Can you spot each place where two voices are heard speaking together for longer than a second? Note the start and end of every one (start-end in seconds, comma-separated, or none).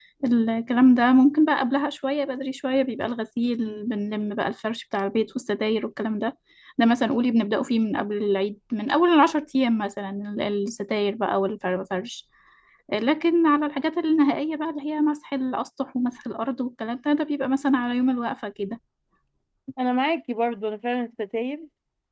none